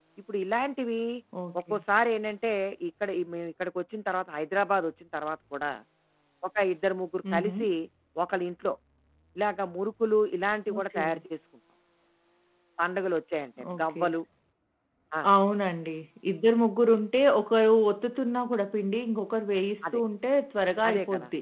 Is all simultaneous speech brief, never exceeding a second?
Yes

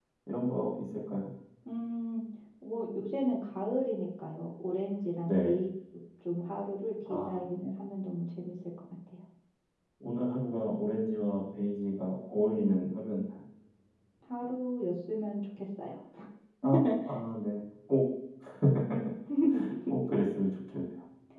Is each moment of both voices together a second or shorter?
Yes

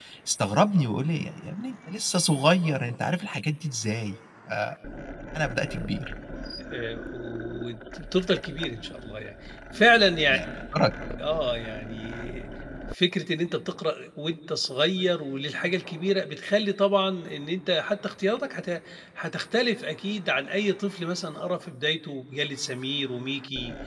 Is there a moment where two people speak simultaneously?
No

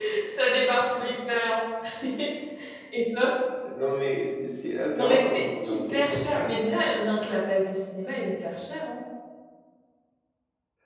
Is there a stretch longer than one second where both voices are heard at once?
Yes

